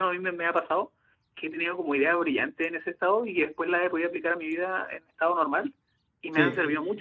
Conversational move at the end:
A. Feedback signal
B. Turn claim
A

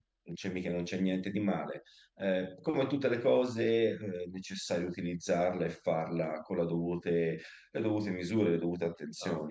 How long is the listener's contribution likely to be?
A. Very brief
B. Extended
B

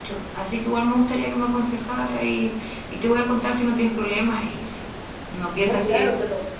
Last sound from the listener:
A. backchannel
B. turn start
B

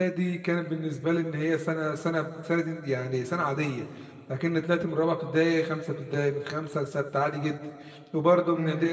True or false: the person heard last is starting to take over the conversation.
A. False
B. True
A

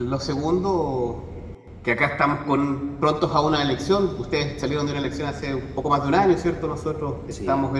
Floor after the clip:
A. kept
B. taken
A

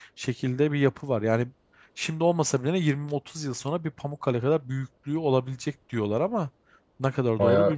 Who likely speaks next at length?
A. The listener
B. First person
A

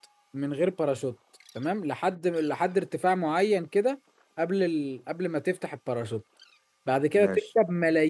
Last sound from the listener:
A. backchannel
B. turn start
A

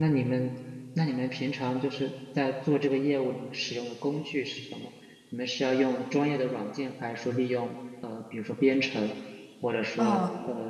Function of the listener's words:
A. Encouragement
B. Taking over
B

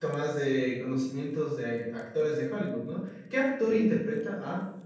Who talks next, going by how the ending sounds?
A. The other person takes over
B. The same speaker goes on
B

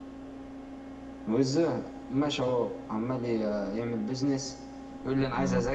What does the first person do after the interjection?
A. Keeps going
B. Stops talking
A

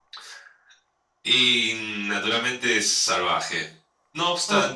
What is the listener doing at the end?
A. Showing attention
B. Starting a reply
A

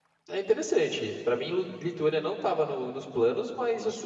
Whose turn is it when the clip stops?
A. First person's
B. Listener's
A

